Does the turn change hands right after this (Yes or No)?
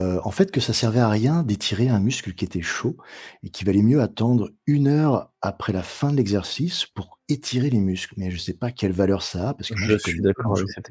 Yes